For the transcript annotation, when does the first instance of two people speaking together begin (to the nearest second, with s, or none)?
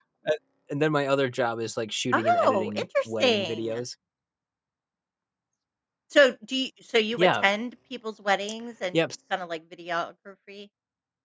2 s